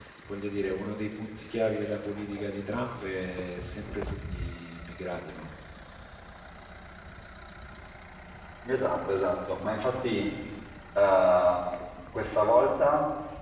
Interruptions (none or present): none